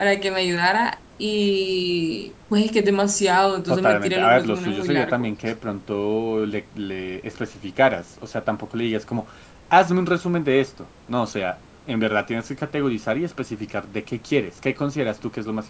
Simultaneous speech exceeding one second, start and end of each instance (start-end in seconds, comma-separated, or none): 3.7-5.3